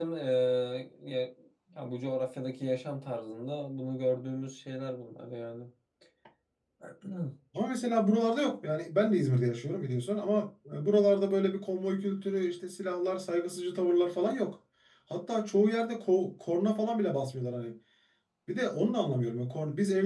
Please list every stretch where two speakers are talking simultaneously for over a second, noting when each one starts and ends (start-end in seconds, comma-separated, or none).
none